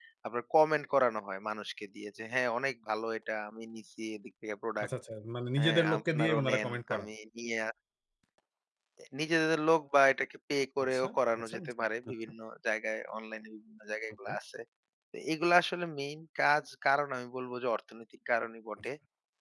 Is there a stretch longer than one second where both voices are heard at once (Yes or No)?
Yes